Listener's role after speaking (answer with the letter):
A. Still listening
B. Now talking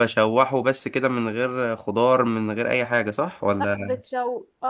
B